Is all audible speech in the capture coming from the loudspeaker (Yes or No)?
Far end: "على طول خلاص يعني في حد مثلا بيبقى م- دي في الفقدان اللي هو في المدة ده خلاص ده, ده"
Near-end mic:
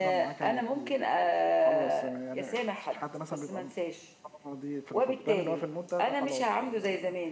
No